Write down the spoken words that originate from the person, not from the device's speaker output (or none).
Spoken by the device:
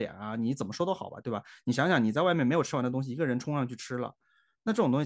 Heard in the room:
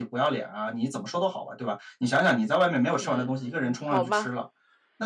嗯，好吧，